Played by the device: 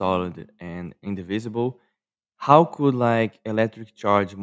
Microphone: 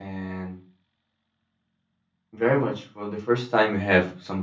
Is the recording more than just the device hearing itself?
Yes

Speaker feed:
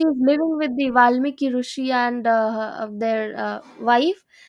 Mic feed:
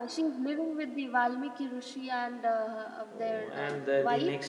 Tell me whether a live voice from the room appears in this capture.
Yes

